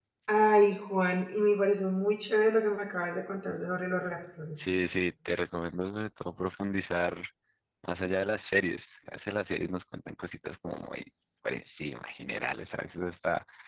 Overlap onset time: none

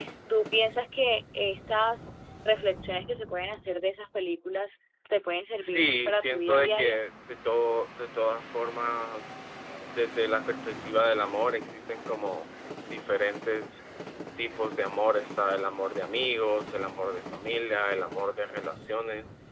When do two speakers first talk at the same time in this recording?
6 s

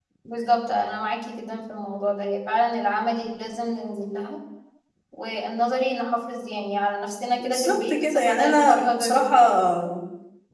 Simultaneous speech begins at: 7 s

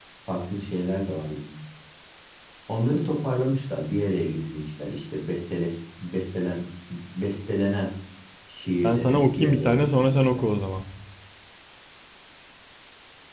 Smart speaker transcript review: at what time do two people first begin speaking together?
9 s

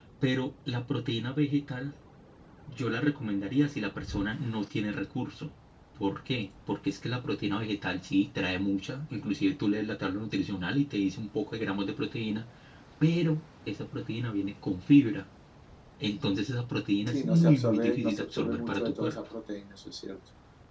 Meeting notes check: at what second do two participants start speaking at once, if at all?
17 s

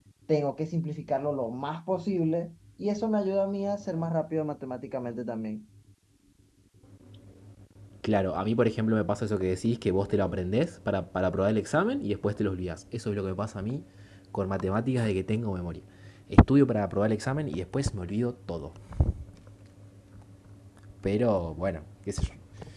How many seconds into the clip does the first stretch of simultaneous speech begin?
none

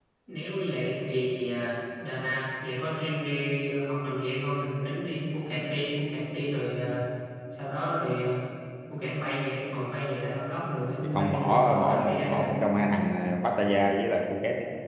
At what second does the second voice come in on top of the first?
11 s

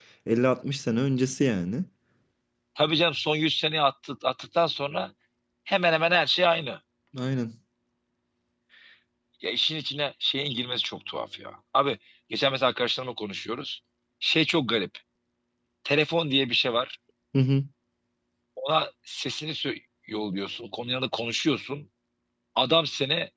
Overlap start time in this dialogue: none

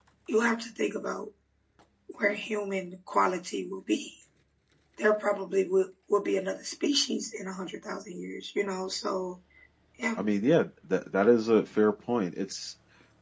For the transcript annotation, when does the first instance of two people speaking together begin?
none

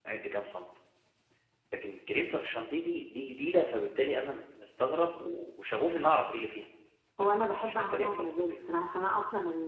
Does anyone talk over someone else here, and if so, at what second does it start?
7 s

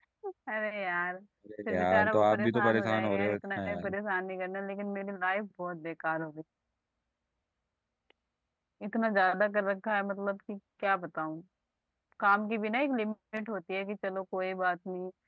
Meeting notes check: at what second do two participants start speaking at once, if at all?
2 s

